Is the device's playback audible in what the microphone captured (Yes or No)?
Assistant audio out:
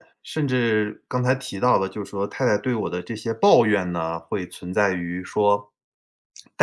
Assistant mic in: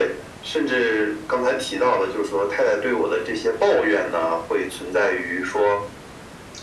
Yes